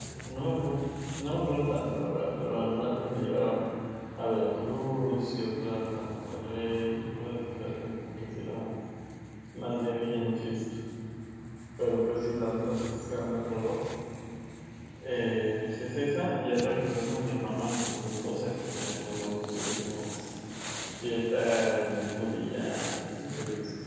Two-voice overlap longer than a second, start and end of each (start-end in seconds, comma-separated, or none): none